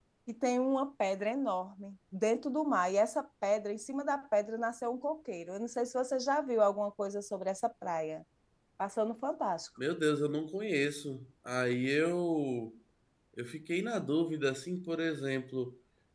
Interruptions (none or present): none